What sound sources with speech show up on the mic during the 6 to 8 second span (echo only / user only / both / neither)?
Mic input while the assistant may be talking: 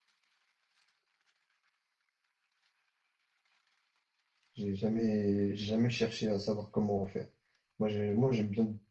user only